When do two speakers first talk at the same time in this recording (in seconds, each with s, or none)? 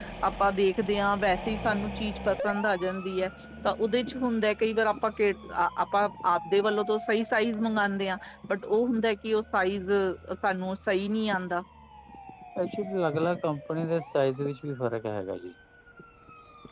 none